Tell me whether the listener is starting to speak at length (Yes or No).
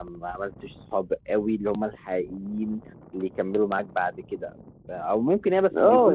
Yes